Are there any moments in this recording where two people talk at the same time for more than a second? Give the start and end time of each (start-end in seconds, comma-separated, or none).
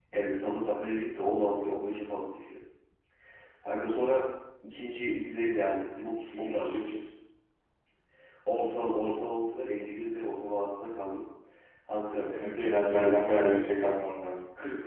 12.3-13.6